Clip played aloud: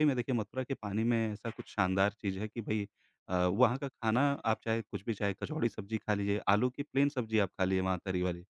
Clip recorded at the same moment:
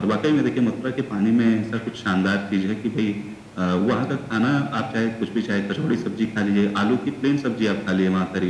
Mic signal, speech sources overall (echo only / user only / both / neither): echo only